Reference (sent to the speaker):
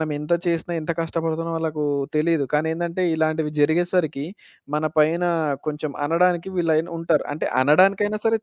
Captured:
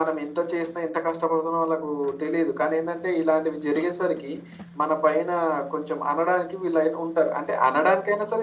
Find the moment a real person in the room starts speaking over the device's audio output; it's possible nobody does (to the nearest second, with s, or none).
none